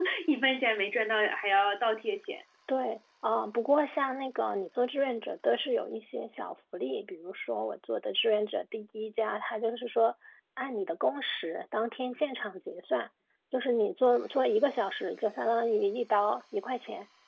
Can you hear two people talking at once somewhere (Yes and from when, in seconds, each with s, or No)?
No